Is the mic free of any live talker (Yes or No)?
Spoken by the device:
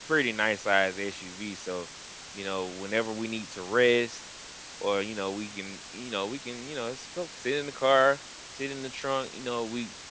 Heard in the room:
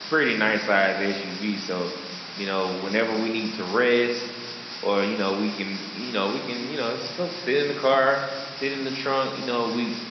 Yes